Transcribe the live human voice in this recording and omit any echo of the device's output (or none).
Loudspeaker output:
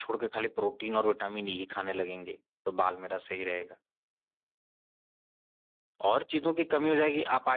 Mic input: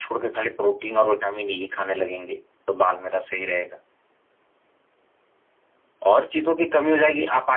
none